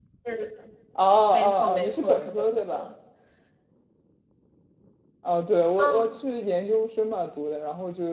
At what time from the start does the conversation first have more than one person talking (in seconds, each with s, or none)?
1.3 s